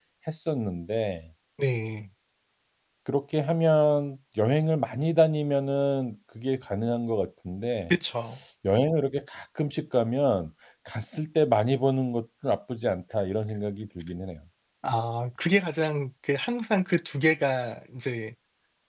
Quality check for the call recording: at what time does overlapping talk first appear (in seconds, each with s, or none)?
none